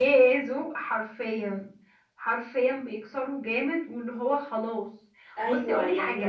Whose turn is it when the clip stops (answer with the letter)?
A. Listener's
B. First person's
A